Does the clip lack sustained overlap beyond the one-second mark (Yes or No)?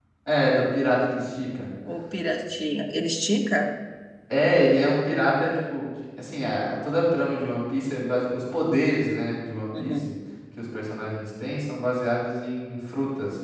Yes